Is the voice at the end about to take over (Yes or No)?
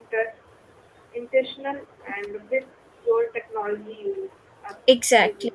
Yes